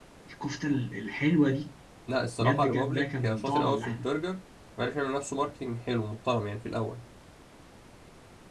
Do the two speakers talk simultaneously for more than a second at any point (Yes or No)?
Yes